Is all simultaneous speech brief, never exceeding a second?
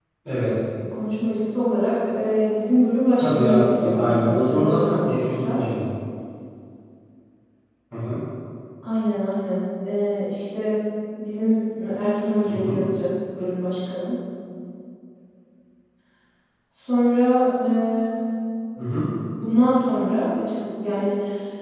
No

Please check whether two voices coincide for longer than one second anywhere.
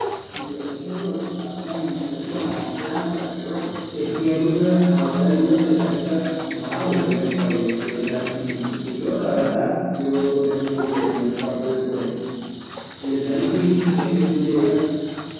No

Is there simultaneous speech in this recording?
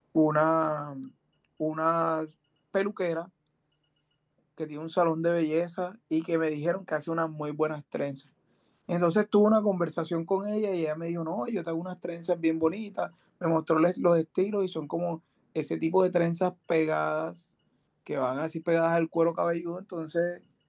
No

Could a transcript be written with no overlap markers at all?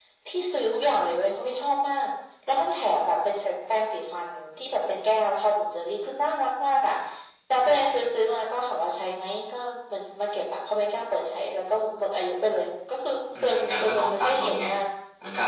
No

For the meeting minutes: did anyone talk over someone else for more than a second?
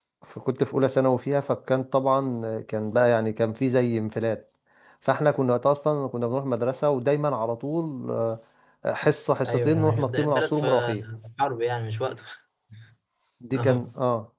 Yes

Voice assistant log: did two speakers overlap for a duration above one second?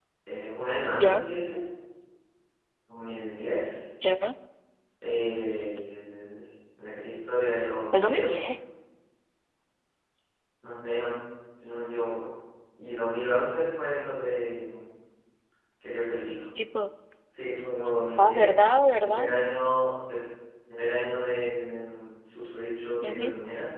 No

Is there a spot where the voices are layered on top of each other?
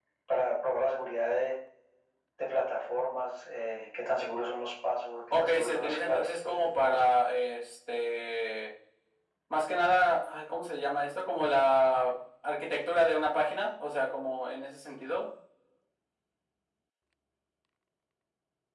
Yes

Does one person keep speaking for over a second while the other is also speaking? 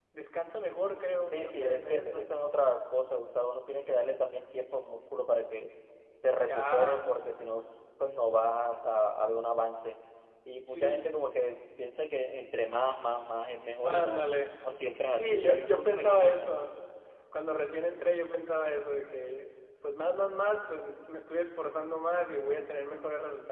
Yes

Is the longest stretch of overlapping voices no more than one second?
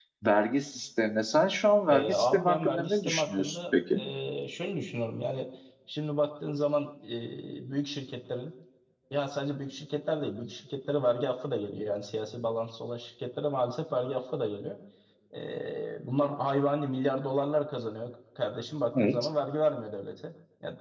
No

